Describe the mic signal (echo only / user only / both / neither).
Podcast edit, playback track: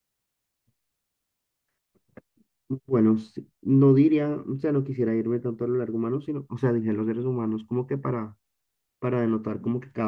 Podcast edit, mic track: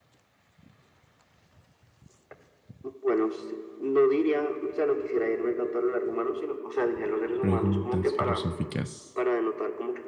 both